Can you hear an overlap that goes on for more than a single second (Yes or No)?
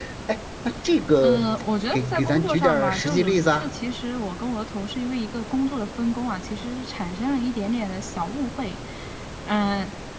Yes